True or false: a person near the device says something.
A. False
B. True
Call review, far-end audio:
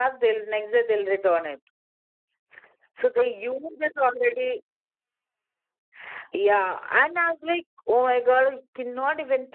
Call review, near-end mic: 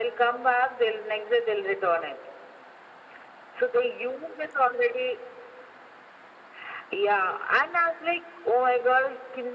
A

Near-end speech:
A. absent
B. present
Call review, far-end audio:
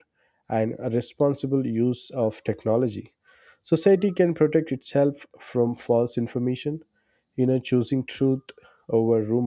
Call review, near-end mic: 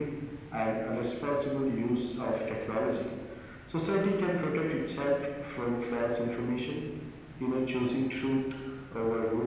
A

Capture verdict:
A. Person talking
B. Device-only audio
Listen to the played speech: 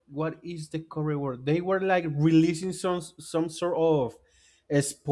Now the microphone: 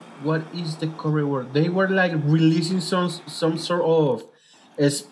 B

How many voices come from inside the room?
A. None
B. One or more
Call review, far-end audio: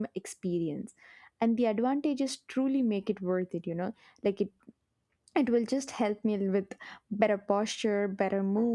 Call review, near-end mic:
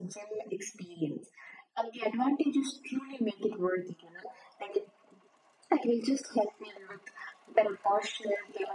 A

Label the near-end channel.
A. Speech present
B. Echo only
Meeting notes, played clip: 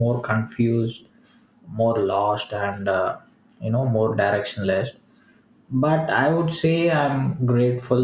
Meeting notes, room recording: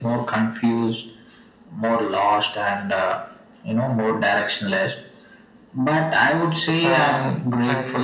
A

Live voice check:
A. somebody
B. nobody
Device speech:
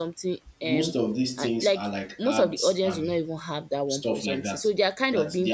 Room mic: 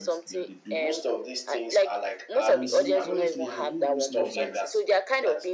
A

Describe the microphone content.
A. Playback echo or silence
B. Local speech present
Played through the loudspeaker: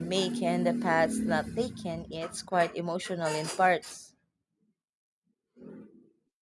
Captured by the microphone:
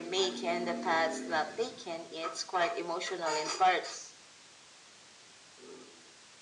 A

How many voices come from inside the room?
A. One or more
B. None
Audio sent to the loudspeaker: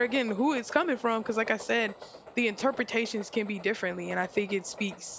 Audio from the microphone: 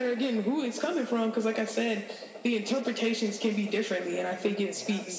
A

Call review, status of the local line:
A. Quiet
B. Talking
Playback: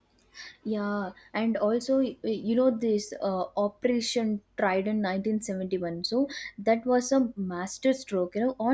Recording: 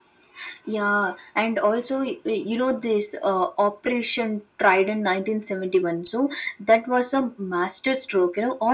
A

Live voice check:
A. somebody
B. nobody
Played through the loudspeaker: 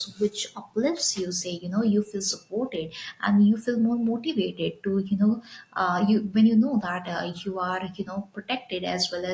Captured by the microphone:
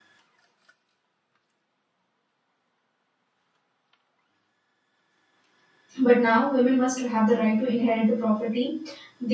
A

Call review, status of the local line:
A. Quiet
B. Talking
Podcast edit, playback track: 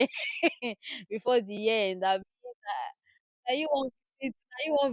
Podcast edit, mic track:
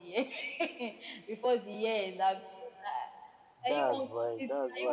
B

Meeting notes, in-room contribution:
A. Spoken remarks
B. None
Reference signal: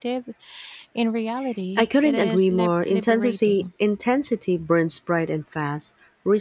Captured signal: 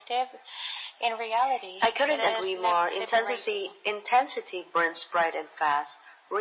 B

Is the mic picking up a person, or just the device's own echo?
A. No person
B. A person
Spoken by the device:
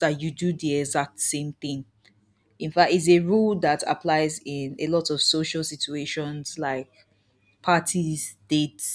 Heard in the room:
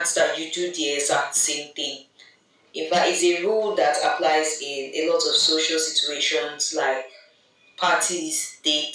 A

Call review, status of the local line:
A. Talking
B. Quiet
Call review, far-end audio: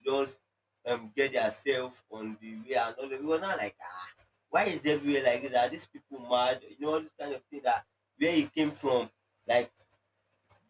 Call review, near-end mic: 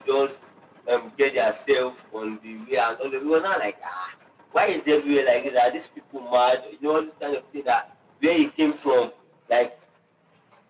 B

